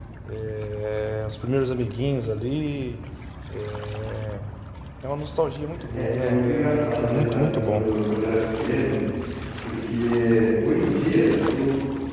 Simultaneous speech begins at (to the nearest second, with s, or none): 6 s